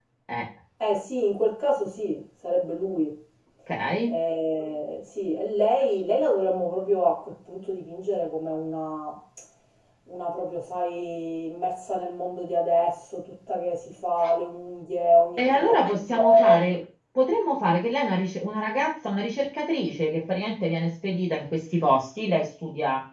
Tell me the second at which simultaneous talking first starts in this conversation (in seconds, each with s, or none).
15.4 s